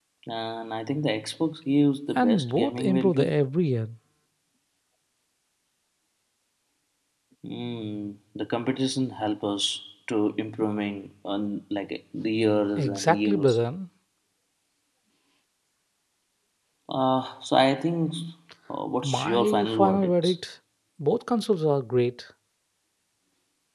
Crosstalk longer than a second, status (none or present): present